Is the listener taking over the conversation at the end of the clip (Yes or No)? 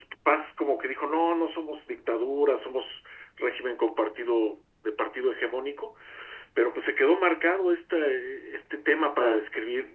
No